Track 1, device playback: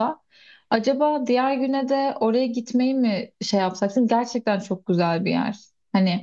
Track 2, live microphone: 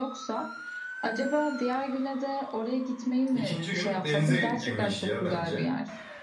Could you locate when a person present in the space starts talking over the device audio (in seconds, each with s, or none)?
3.3 s